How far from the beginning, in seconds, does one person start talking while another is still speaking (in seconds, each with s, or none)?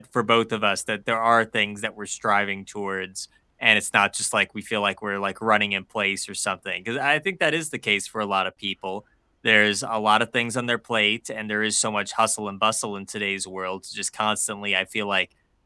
none